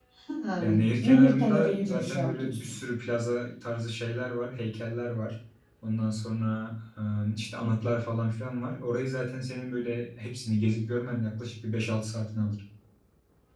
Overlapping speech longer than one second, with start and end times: 0.6-2.8

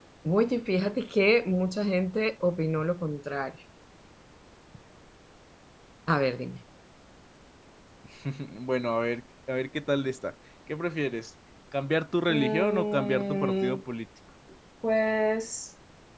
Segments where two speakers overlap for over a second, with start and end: 12.3-13.8

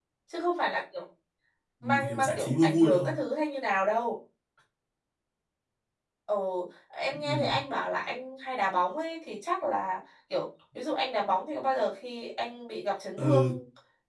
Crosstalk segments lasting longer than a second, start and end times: 1.8-3.1

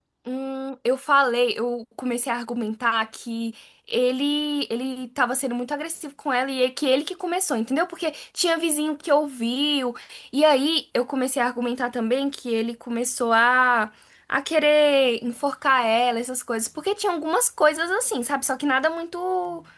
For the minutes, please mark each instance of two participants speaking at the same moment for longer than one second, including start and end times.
none

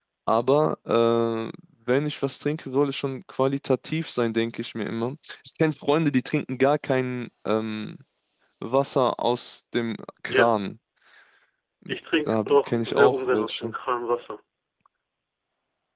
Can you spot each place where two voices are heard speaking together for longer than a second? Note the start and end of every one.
12.3-13.7

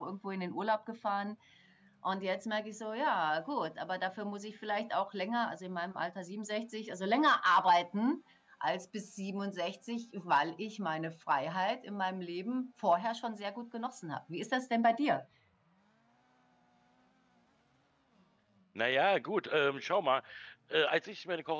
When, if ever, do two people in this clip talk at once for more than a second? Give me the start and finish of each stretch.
none

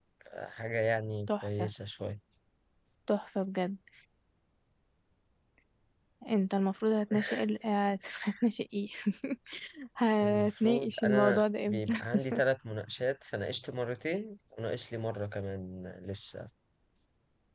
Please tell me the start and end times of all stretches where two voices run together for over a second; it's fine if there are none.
10.2-11.9

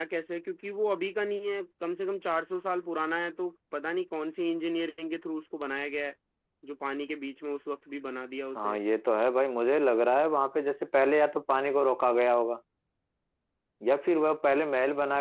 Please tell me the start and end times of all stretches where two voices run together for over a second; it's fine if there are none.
none

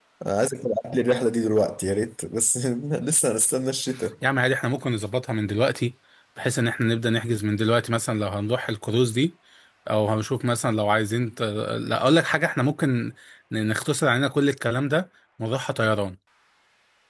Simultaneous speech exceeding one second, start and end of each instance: none

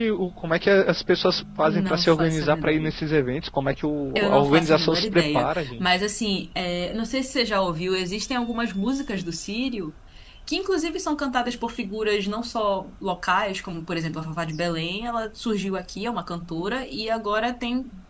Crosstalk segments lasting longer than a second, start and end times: 1.6-3.0, 4.2-6.0

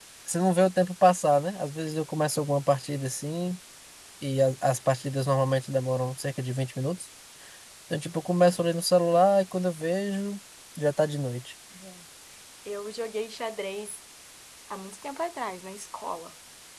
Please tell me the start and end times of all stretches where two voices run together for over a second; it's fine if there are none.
none

